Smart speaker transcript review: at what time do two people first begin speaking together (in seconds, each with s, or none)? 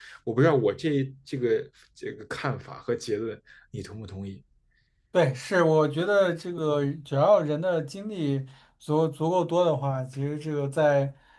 none